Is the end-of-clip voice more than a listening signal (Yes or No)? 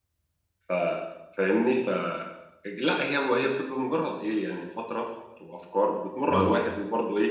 No